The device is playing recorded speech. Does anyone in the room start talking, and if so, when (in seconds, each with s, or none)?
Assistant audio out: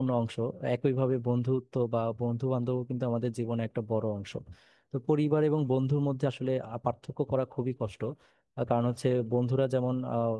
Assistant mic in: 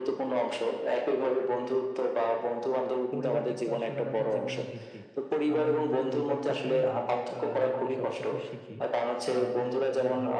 3.1 s